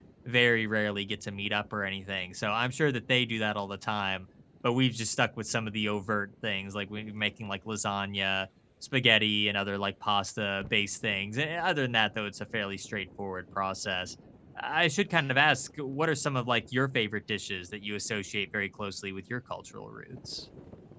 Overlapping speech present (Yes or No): No